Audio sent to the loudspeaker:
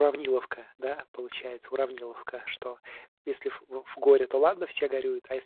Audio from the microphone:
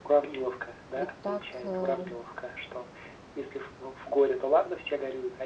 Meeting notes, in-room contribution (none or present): present